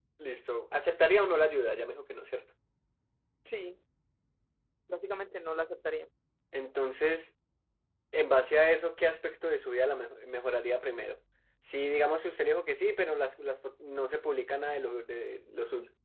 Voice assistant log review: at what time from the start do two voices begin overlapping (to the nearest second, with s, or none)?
none